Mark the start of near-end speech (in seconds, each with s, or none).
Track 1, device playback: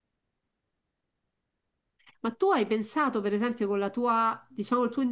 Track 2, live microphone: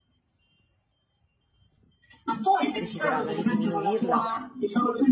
2.8 s